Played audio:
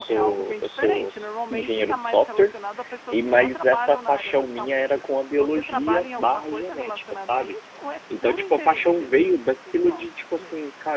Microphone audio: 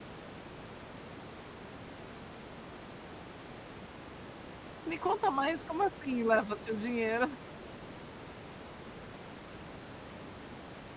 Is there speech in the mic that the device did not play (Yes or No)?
Yes